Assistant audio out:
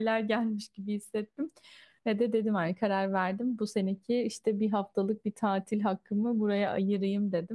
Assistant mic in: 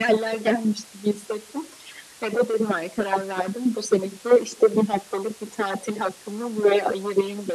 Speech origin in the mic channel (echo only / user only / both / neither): echo only